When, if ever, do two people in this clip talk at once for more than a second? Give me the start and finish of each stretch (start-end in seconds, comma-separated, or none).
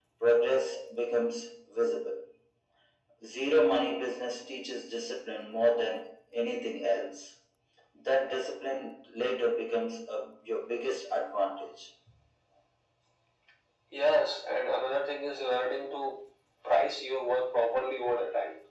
none